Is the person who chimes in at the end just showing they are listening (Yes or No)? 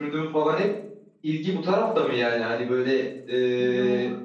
Yes